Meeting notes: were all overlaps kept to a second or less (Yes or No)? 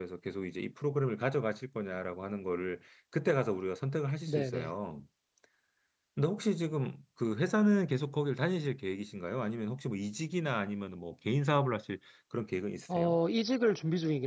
Yes